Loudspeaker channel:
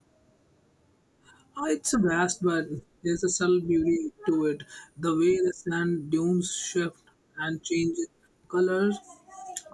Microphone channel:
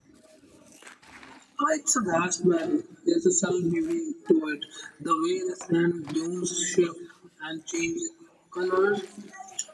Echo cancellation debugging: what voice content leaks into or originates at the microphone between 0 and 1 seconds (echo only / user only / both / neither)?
neither